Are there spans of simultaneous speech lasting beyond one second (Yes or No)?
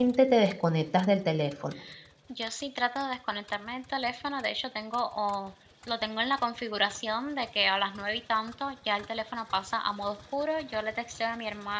No